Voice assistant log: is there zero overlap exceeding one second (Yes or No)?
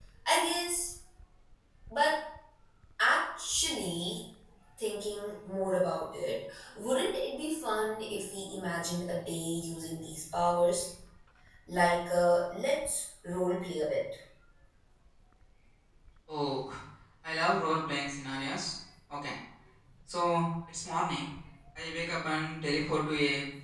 Yes